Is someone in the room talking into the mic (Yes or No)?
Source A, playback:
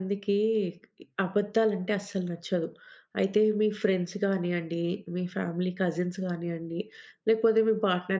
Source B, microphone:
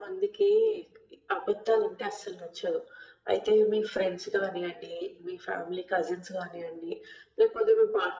No